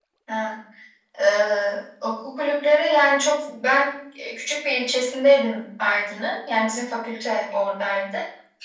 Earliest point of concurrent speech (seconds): none

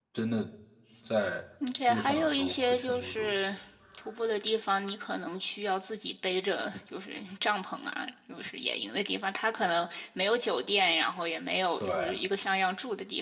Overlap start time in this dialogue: 1.9 s

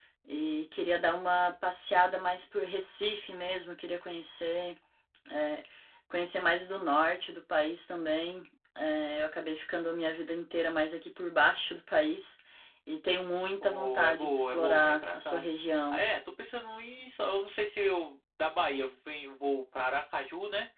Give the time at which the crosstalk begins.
13.6 s

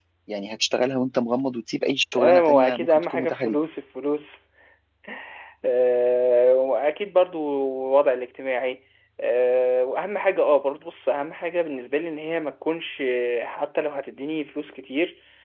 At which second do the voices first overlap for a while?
2.1 s

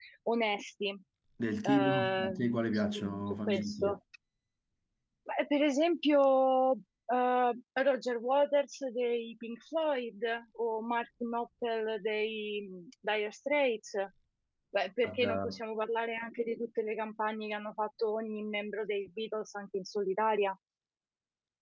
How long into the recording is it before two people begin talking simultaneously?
1.6 s

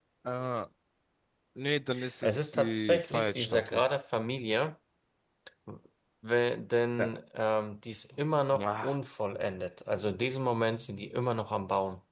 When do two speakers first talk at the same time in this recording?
2.2 s

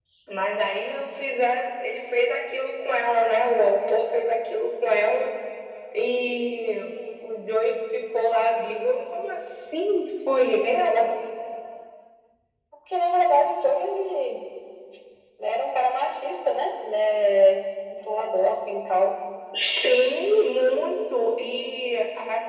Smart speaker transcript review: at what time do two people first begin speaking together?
none

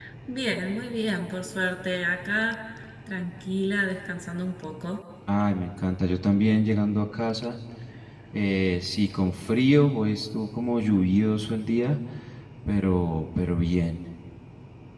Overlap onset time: none

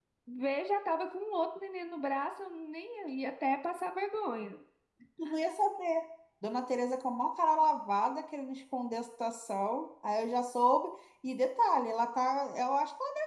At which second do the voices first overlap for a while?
none

